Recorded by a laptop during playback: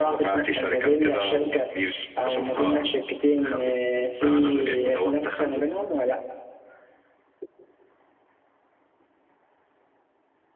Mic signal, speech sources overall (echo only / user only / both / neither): echo only